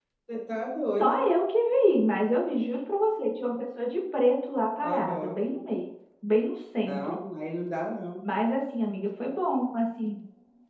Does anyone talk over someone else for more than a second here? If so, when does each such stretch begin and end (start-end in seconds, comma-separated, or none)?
none